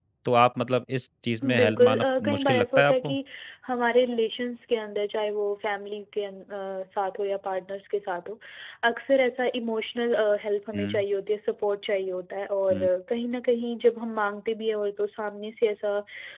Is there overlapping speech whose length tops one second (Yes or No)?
Yes